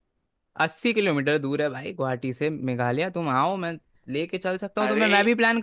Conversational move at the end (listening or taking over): listening